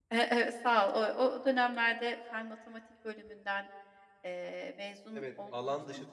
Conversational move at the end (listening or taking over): taking over